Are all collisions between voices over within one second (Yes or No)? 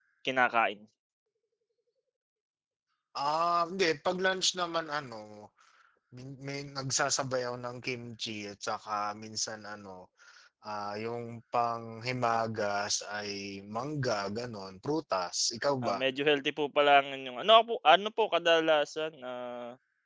Yes